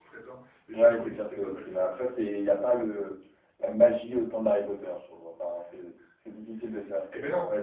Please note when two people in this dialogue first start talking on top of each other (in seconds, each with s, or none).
0.7 s